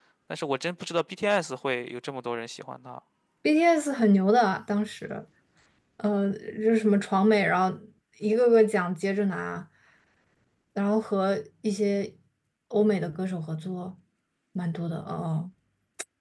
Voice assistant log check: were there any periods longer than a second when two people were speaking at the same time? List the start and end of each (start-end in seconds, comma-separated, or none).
none